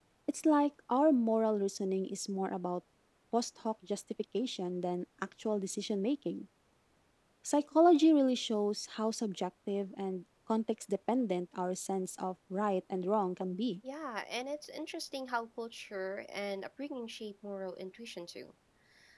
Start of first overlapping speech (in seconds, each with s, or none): none